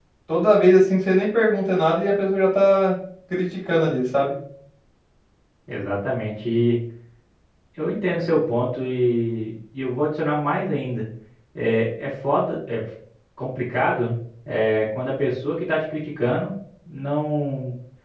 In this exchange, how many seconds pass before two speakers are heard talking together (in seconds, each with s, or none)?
none